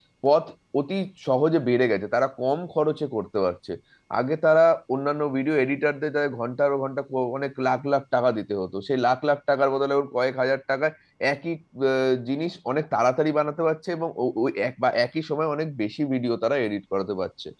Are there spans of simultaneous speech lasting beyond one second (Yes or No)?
No